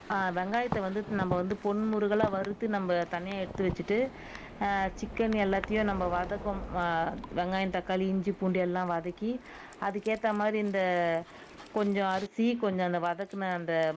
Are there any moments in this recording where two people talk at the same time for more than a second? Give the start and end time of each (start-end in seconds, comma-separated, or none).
none